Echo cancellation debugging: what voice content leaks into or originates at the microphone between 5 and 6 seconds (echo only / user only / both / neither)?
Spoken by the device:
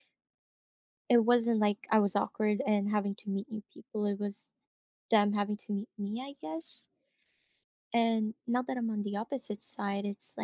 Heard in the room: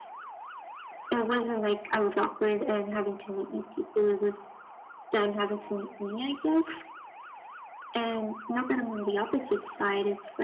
echo only